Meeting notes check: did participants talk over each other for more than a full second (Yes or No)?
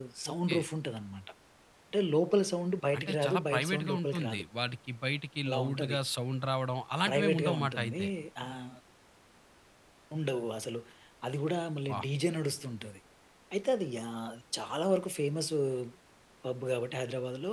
Yes